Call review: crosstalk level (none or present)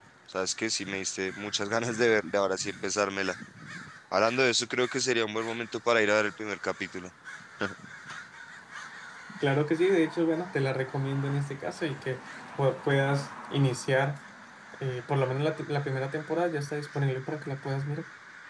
none